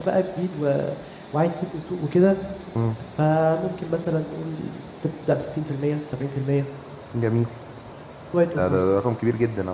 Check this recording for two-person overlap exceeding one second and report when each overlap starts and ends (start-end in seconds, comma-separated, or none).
none